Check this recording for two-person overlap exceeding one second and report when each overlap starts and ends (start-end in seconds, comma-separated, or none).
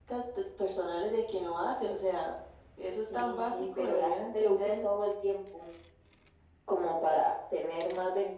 3.1-4.9